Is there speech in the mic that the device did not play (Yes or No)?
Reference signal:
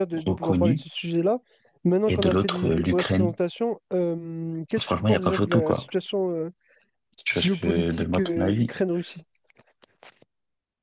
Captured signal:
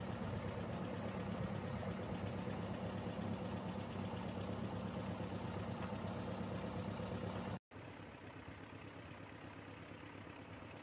No